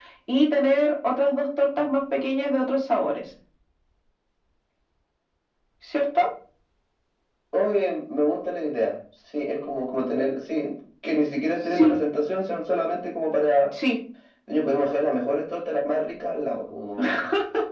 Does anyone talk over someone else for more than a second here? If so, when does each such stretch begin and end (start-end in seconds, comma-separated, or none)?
none